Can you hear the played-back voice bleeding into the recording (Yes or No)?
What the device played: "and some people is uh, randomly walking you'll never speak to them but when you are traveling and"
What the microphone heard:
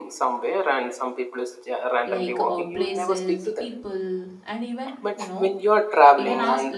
Yes